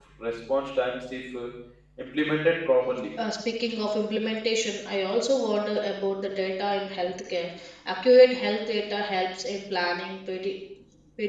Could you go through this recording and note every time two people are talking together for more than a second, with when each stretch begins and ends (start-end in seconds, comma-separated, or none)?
none